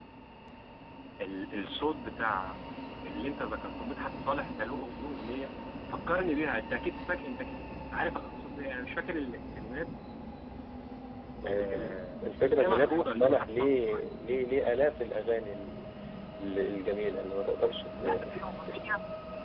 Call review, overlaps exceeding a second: present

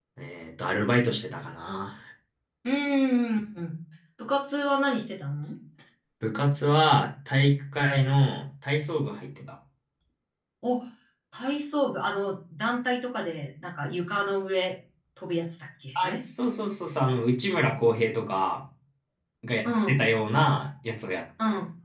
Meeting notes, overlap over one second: none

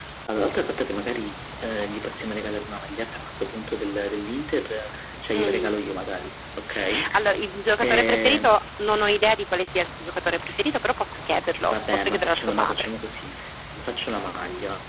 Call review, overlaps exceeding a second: present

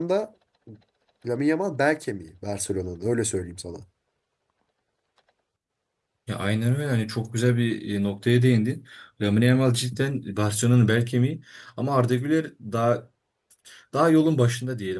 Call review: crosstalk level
none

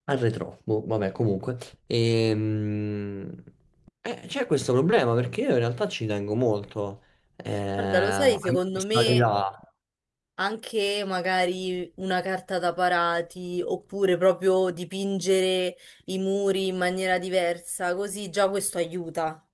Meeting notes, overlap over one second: present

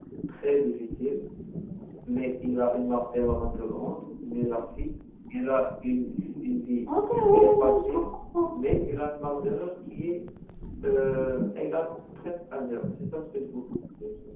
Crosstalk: present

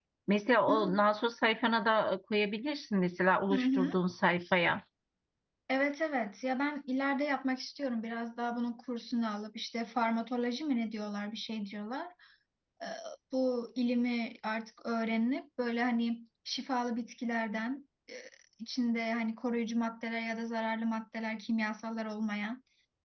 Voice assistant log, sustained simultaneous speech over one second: none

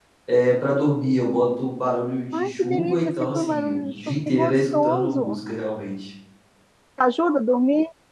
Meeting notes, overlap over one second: present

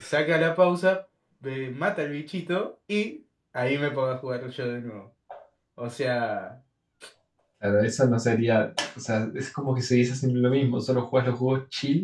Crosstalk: none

